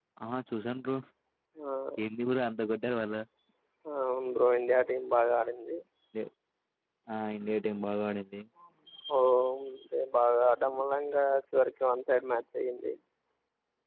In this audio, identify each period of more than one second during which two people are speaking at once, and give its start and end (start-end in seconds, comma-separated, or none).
none